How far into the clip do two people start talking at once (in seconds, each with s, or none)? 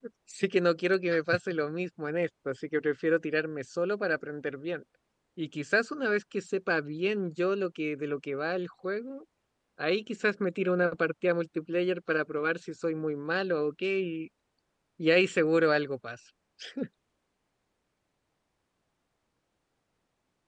none